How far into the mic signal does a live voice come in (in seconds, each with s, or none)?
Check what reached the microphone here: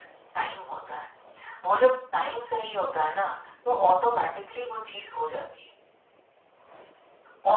none